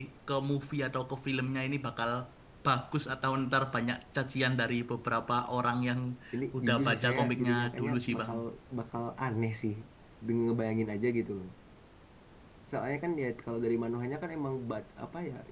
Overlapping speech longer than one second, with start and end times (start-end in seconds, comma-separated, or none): 6.6-8.3